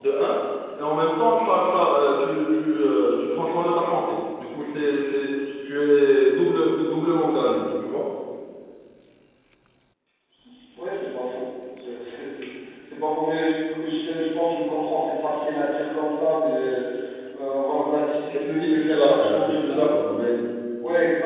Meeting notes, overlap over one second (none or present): present